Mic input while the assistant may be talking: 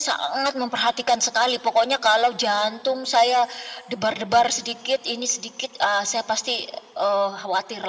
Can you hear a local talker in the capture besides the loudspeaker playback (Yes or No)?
No